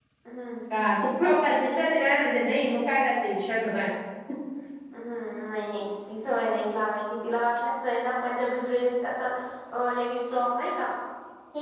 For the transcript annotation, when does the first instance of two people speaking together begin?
none

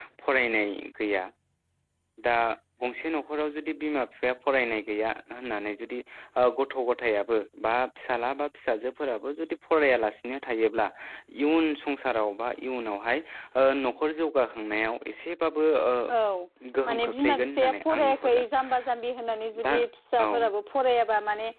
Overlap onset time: 16.9 s

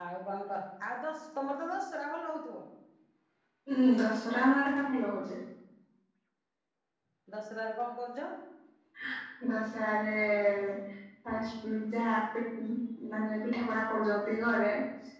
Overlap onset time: none

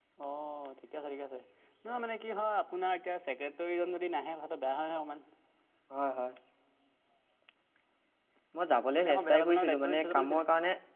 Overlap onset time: 8.9 s

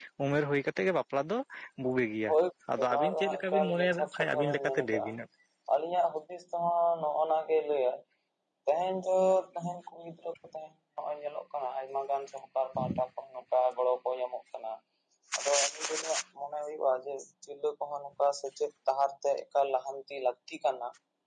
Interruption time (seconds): 2.9 s

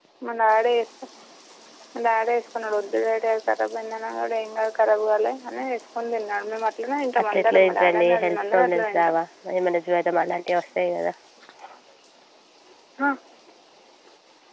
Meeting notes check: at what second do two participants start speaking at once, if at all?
7.2 s

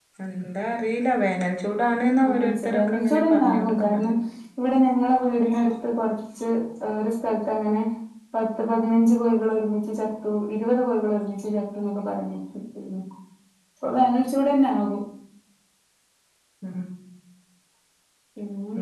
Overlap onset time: 2.2 s

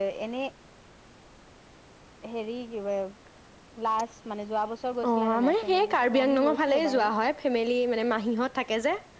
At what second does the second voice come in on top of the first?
5.0 s

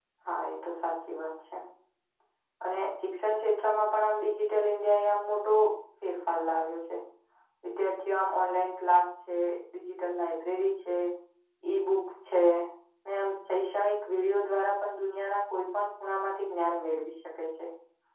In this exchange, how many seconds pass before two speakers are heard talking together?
none

